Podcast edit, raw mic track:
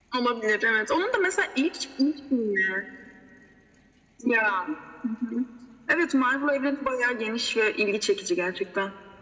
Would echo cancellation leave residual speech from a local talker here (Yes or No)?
No